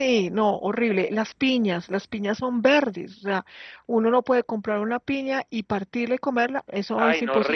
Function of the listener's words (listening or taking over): taking over